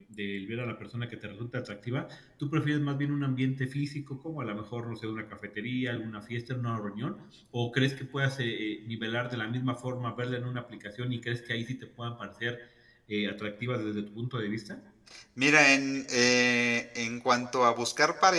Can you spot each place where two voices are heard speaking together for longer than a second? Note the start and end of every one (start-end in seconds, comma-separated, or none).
none